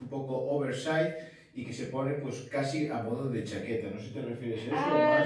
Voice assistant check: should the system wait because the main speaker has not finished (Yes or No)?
No